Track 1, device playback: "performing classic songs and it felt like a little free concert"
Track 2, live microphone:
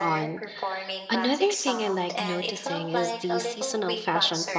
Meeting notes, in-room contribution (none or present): present